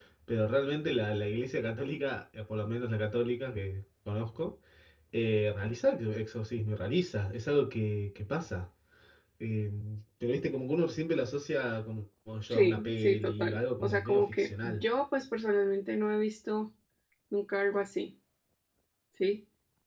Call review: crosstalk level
present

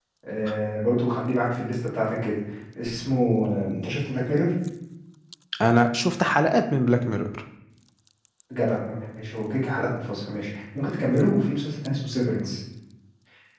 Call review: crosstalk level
none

